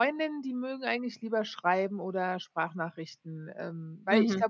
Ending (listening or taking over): taking over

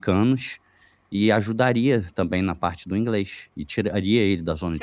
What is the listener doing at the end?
taking over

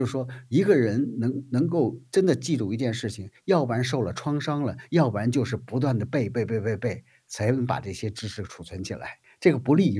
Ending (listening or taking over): taking over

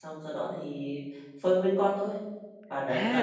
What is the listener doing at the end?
taking over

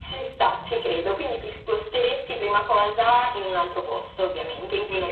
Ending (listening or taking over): taking over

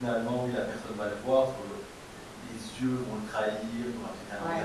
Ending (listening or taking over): taking over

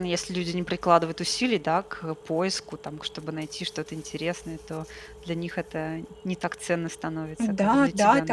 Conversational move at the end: taking over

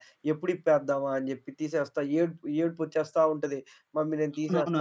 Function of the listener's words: taking over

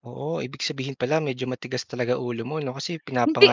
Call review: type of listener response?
listening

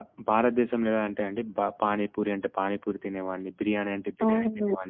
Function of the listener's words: taking over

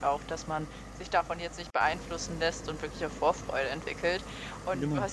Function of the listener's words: listening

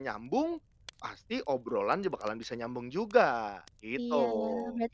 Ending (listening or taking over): taking over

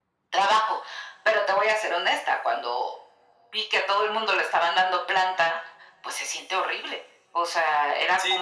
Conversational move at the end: taking over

